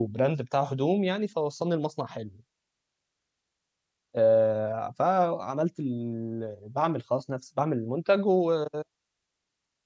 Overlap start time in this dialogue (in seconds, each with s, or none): none